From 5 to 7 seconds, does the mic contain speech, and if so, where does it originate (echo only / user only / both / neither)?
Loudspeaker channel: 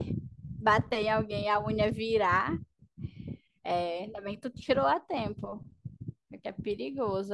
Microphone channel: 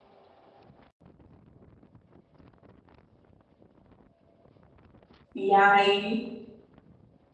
user only